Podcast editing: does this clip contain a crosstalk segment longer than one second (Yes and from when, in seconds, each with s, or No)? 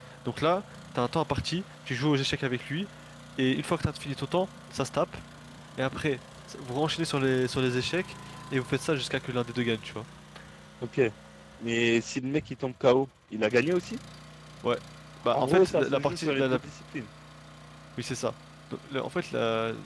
Yes, from 15.3 s